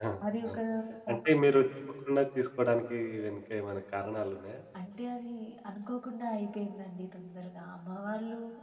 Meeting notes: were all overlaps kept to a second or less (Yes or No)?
Yes